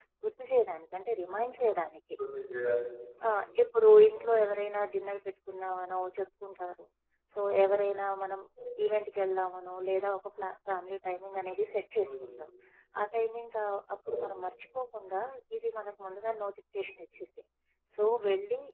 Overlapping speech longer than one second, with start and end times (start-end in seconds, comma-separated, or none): none